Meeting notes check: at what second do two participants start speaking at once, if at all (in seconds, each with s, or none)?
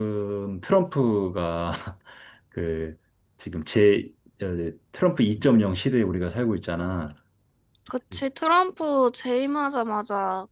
none